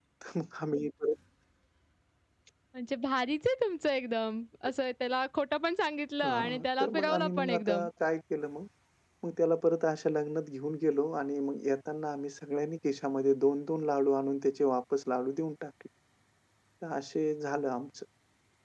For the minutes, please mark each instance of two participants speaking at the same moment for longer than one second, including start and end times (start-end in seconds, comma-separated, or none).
6.2-7.9